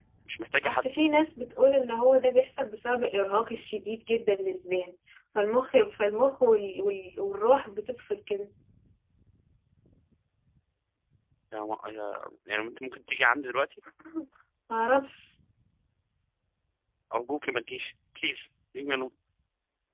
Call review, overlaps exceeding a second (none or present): none